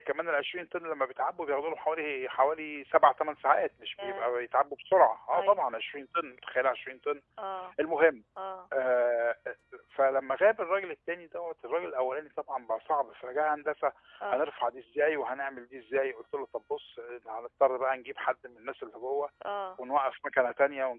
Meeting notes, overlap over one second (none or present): none